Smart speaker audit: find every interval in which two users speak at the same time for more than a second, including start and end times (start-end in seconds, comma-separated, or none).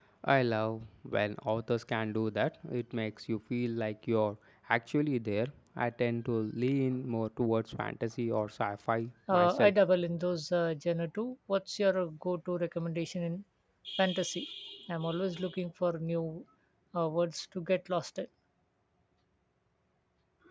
none